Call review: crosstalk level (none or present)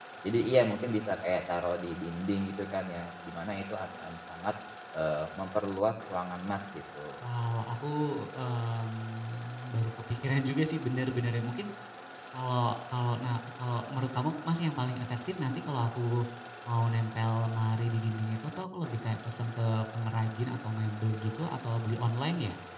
none